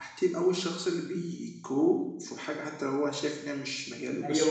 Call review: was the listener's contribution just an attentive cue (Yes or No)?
No